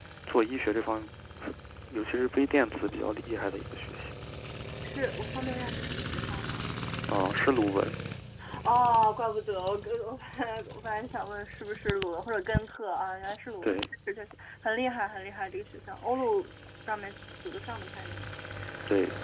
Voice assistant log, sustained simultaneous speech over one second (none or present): none